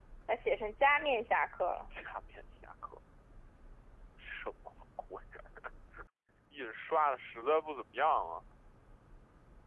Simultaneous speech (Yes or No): No